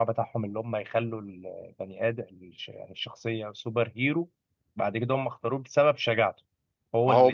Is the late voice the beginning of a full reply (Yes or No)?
No